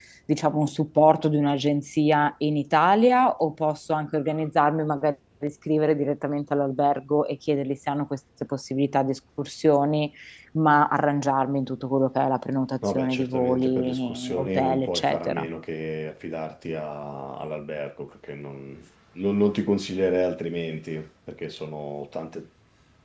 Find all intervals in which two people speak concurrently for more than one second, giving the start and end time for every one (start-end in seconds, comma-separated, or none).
12.9-15.5